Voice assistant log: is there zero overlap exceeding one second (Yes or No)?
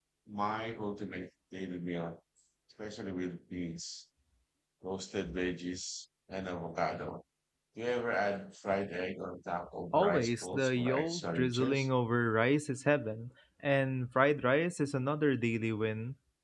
No